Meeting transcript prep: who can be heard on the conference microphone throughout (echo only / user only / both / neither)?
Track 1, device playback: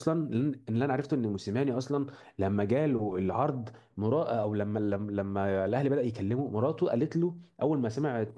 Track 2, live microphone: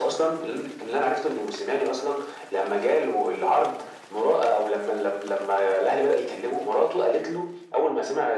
echo only